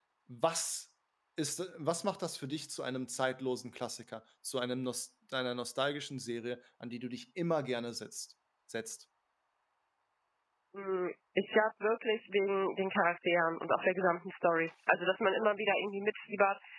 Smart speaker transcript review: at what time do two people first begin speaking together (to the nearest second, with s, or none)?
none